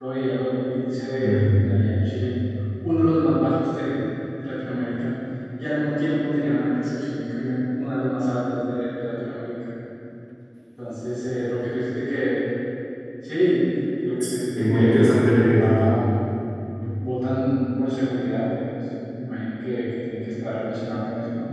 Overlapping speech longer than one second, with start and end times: 14.6-15.8

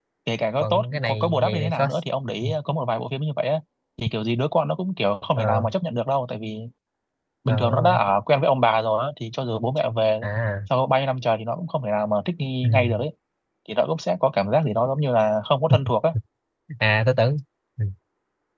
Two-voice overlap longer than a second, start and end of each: 0.6-1.9

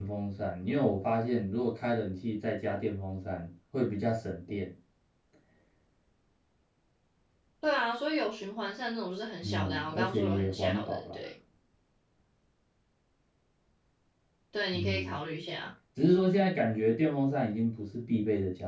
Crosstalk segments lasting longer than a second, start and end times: 9.4-11.2

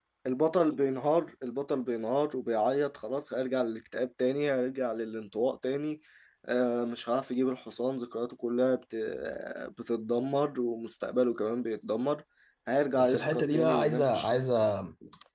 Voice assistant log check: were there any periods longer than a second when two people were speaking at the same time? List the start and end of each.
13.0-14.4

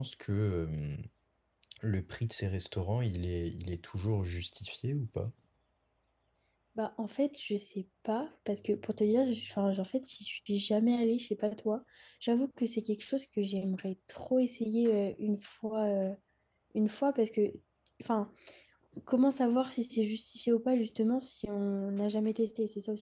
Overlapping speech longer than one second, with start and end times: none

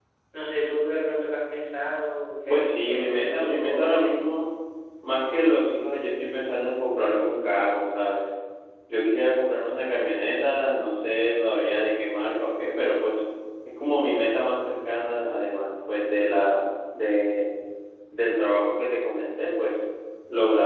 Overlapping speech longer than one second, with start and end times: 2.5-4.2

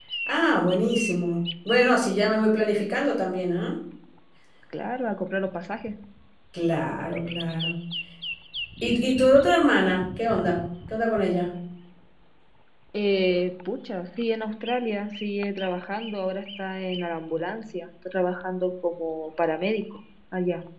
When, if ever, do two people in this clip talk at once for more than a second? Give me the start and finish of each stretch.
none

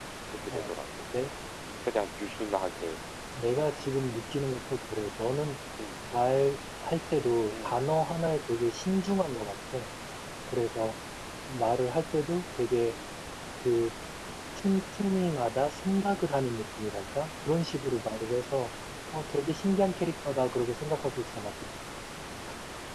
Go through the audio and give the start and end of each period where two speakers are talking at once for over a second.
none

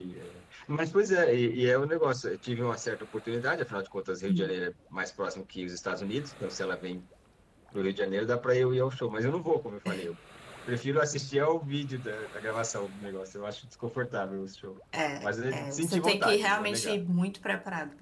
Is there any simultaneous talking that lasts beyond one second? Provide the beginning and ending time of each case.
15.2-17.0

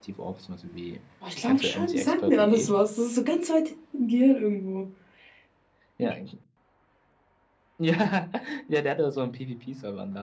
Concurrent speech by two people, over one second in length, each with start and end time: 1.4-2.7

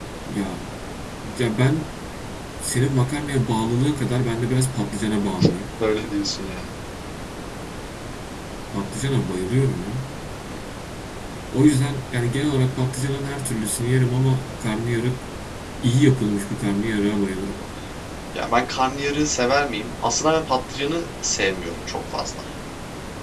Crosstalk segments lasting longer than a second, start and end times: none

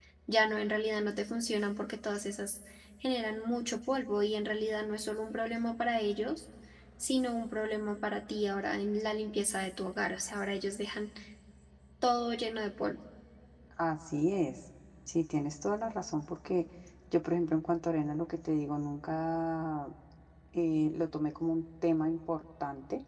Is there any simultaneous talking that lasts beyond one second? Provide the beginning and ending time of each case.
none

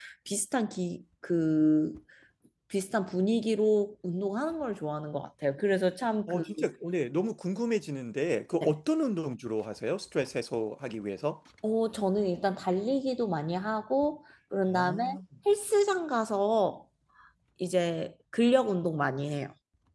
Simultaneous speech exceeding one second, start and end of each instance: none

